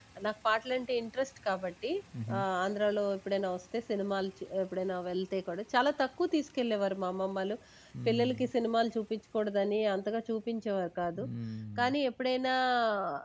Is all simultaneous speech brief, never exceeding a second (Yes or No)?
Yes